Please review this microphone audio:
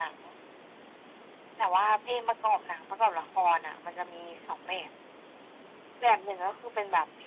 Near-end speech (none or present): none